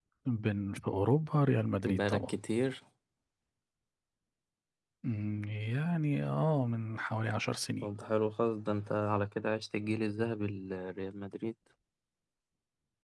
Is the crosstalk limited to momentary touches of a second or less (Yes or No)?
Yes